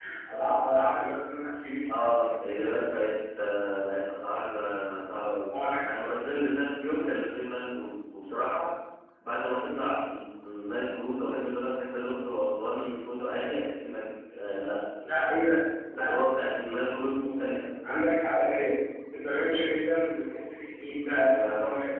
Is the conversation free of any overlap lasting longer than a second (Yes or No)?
Yes